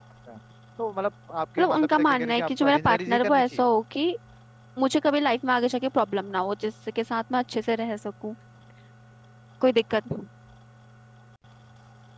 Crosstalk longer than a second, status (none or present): present